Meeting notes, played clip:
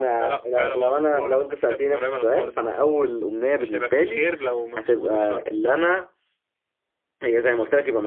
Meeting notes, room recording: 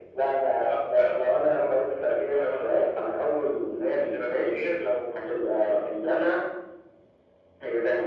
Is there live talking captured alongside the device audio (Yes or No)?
No